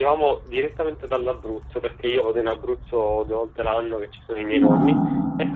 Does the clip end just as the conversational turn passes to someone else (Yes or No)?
No